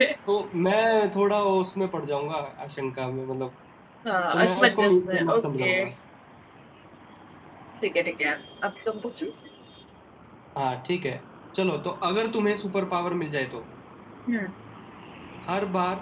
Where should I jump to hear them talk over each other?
4.3 s

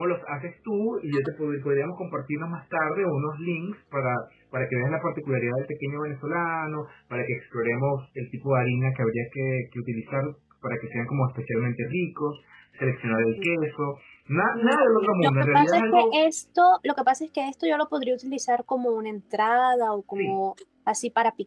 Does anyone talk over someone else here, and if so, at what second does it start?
14.5 s

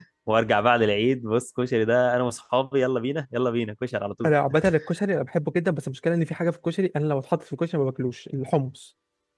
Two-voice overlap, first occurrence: none

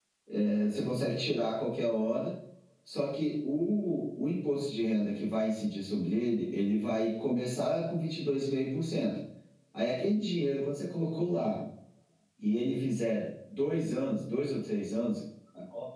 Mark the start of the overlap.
none

